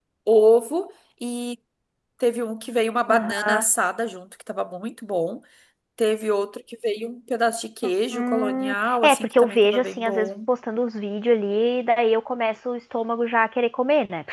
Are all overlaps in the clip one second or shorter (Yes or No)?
No